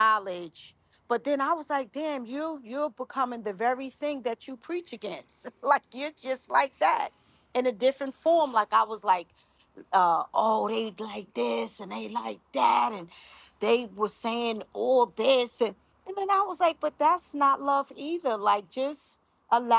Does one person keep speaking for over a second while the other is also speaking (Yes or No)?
No